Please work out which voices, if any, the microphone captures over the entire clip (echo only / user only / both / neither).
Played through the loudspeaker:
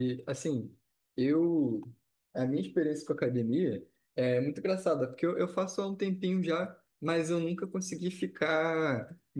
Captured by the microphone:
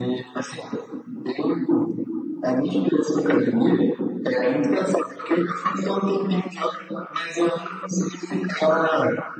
echo only